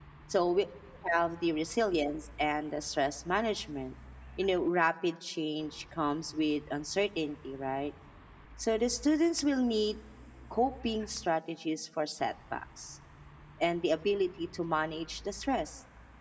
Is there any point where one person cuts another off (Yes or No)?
No